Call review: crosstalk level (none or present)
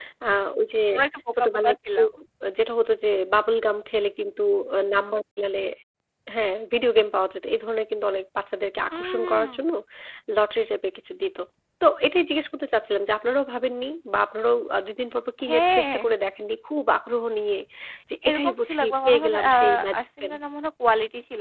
present